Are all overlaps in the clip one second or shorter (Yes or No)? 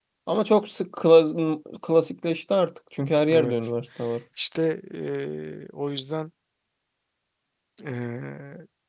Yes